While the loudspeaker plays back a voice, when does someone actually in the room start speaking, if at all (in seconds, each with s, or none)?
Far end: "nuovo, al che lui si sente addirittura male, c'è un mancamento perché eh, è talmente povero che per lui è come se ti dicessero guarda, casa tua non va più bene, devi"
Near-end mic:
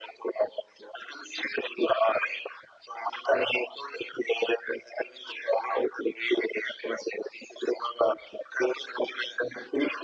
none